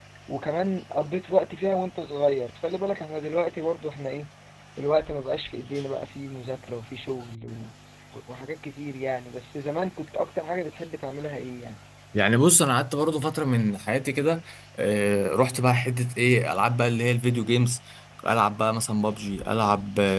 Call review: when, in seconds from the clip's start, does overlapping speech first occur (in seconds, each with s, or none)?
none